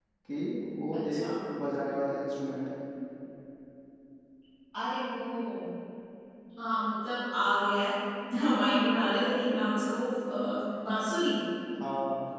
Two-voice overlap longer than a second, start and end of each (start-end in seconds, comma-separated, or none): none